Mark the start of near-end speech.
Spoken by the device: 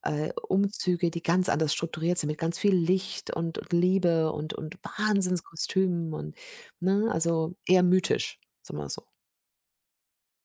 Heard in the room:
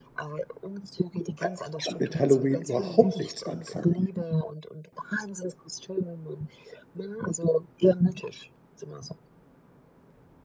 1.4 s

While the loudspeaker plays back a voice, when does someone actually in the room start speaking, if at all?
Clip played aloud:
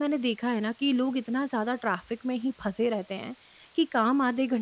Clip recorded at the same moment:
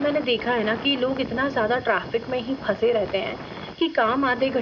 none

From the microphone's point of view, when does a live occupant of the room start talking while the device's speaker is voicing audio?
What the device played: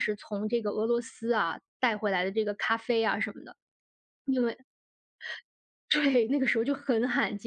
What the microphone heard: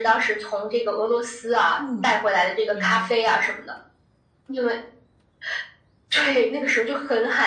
1.8 s

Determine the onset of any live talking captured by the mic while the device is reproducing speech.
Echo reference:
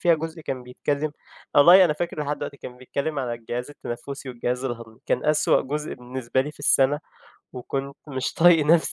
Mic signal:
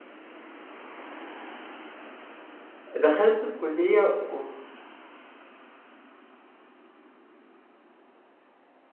3.0 s

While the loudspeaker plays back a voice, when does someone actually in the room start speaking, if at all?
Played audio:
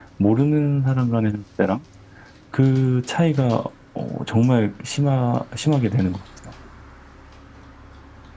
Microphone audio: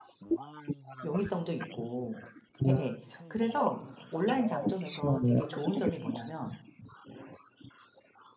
1.0 s

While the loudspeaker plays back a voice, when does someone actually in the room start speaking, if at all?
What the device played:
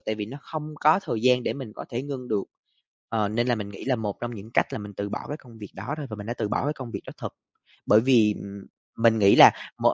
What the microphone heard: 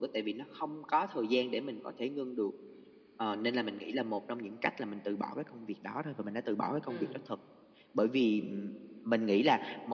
6.8 s

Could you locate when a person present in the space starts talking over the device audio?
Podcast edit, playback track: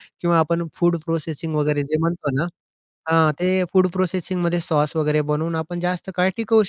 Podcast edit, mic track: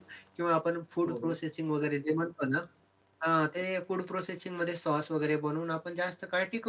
1.1 s

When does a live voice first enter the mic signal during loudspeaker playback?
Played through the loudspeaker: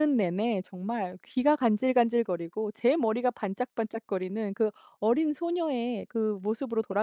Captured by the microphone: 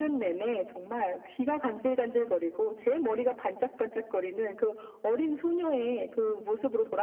none

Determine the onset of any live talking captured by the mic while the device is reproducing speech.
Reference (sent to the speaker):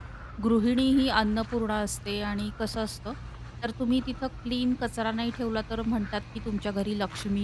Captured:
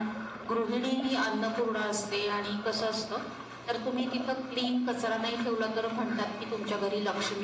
none

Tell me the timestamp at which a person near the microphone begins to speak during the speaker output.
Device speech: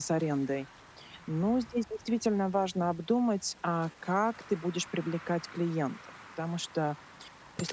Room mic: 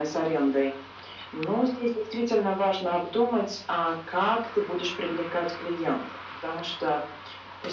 none

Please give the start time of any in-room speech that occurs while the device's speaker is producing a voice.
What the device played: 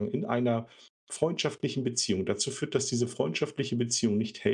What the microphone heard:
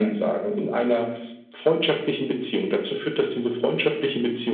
none

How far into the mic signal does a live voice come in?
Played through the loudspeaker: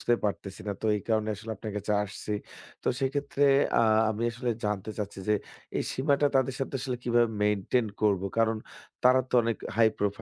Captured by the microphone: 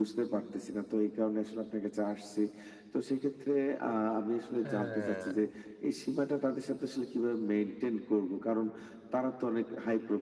4.6 s

